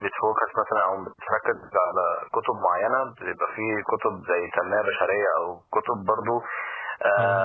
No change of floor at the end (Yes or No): Yes